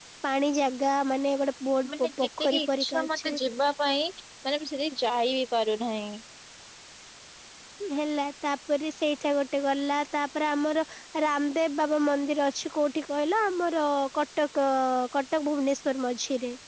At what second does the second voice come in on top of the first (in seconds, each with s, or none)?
1.8 s